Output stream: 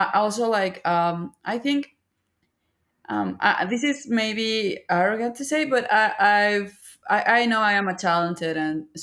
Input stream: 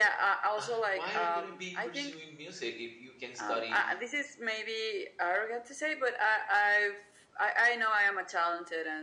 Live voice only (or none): Uh, why are you going to be pursuing music if you can study